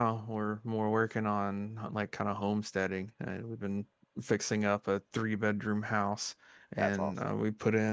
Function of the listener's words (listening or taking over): listening